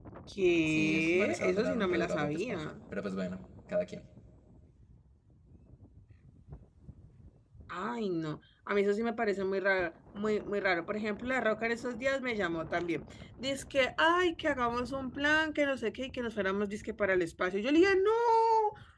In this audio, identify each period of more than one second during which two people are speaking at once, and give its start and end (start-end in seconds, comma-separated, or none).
0.7-2.8